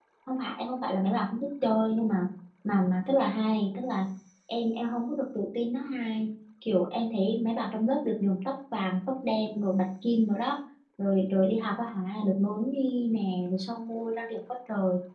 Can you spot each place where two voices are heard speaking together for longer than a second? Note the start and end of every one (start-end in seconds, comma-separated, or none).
none